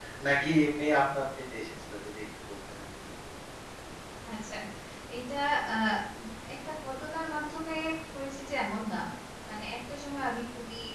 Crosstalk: none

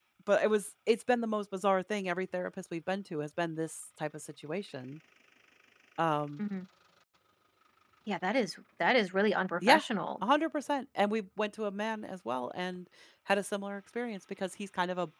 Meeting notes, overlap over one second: none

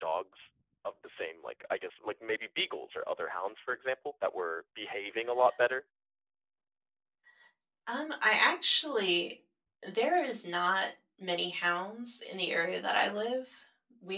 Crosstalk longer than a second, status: none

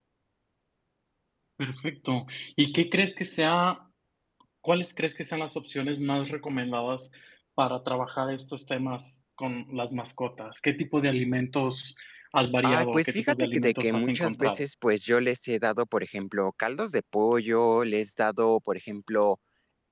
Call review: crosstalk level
present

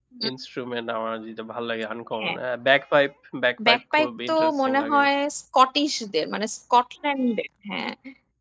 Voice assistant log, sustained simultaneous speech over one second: present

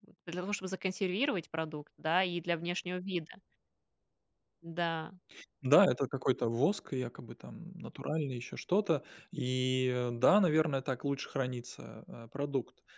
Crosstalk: none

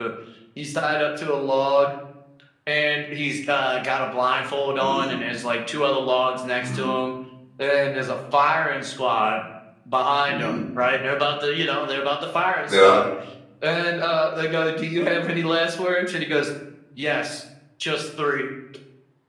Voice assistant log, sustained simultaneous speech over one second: none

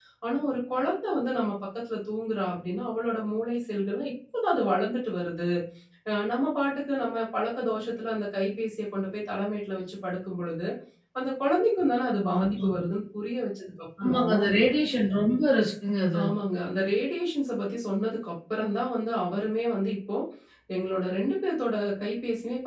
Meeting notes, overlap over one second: none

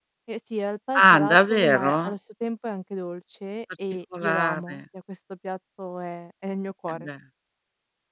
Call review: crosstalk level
present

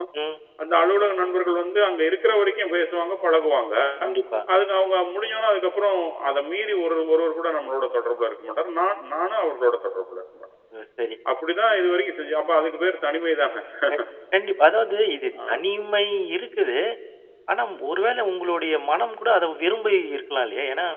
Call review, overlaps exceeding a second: none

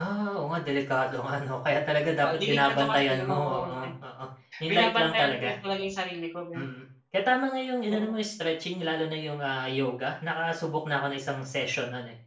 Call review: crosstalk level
present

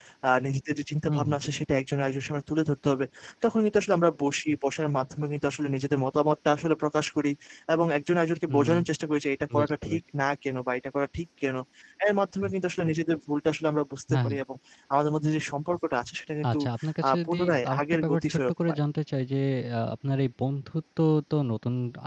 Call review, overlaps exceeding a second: present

